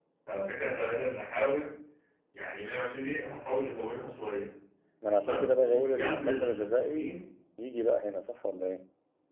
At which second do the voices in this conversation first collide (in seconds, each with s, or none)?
5.2 s